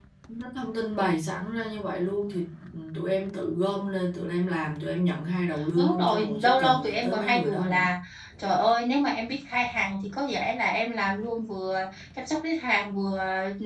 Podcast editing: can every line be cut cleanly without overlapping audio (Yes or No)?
No